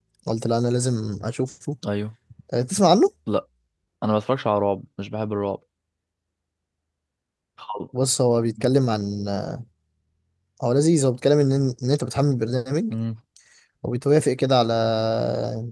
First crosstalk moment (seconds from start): none

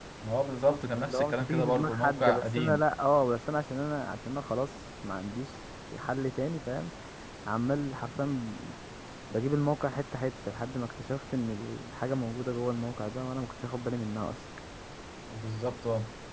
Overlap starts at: 1 s

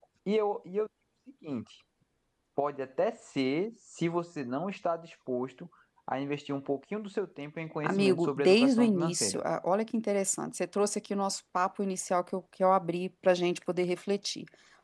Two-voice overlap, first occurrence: 8 s

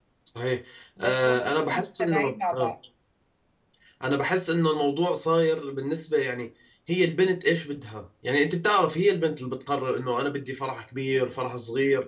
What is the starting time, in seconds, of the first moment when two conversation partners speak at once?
1 s

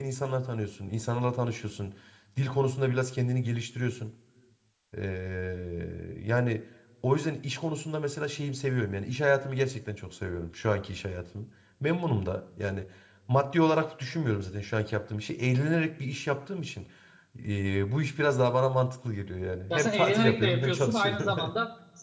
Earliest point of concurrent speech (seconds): 20 s

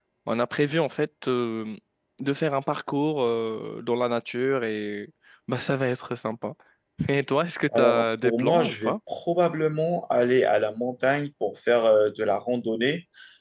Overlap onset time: 8 s

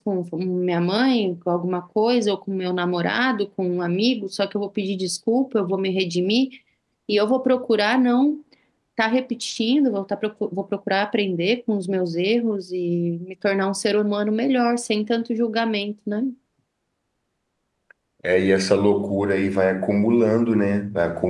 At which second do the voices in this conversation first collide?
none

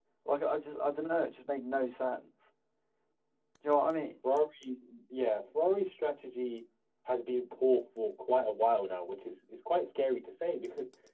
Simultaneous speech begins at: none

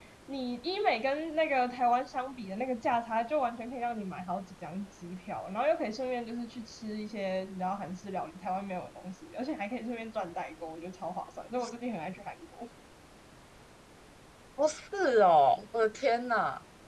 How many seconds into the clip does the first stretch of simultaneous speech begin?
none

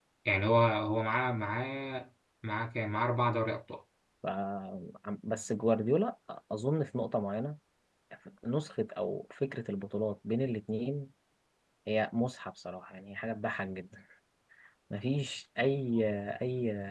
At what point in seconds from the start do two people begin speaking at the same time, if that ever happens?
none

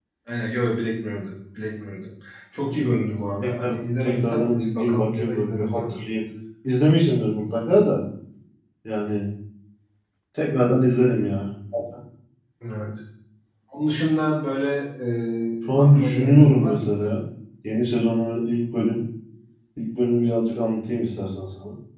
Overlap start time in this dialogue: 4 s

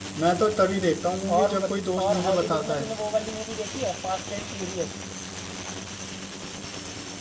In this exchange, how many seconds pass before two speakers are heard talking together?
1 s

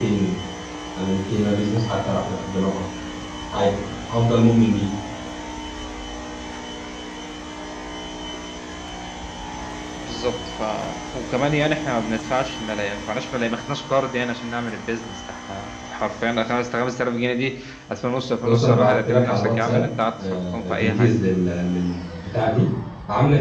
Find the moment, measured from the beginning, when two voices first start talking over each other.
18 s

